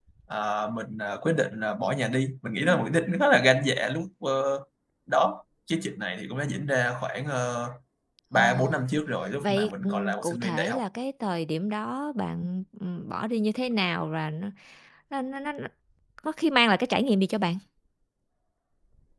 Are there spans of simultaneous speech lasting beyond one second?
Yes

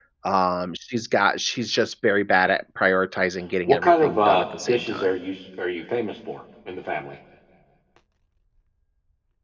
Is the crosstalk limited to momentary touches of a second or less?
No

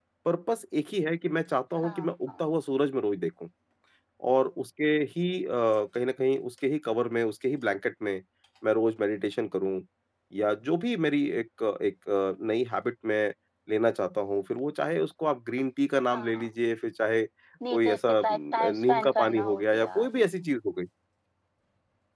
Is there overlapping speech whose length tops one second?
Yes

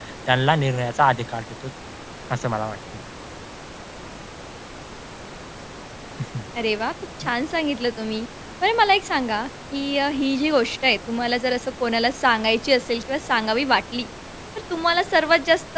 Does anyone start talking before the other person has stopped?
No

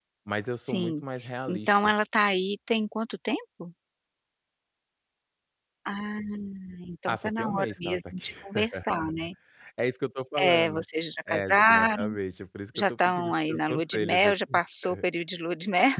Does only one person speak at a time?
No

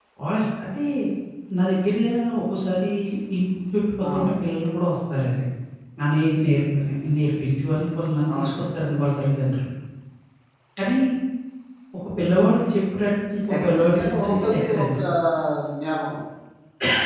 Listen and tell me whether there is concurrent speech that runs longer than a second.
Yes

